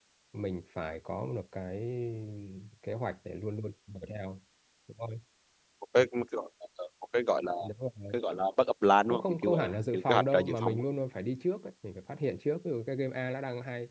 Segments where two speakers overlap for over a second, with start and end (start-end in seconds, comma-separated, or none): 9.1-10.8